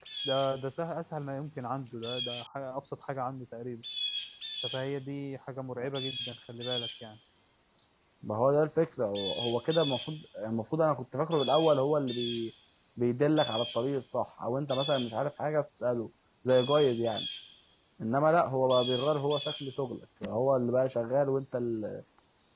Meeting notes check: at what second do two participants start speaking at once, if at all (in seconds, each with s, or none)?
none